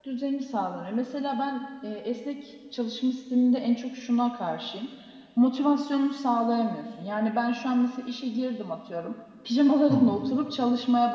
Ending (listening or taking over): listening